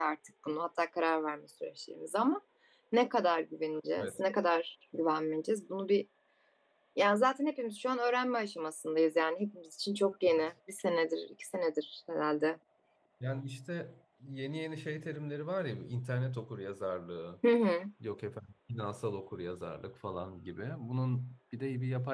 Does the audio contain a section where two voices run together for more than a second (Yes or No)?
No